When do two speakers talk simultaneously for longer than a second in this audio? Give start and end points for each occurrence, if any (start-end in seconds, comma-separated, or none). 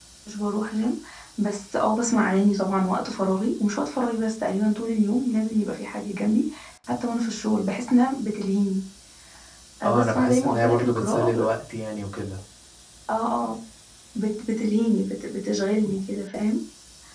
9.8-11.4